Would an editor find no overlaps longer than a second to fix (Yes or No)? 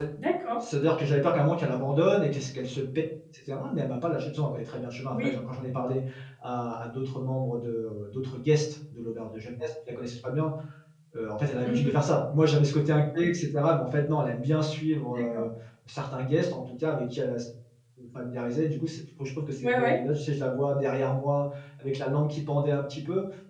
Yes